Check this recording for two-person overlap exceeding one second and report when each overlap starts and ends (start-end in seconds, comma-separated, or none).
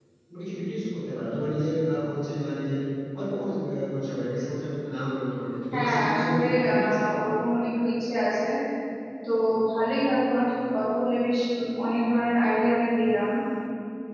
5.7-7.0